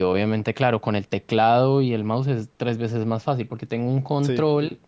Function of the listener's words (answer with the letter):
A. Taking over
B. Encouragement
B